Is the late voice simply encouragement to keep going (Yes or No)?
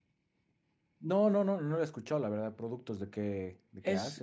No